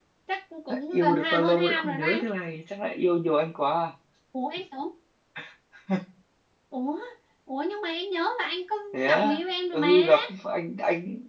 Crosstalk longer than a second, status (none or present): present